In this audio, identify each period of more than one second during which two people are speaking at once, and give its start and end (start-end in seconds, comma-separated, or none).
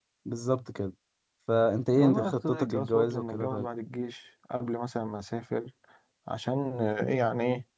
2.0-3.7